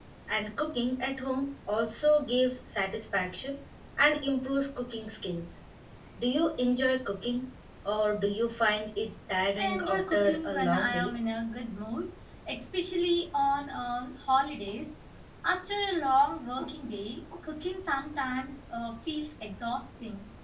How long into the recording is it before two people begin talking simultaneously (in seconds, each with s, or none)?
9.6 s